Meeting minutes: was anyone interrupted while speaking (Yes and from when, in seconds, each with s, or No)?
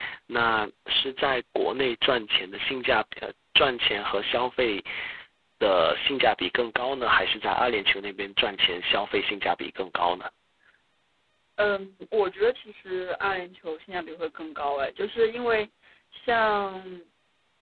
No